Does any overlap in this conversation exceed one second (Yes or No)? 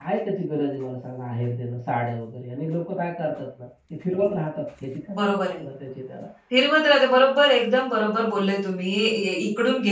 No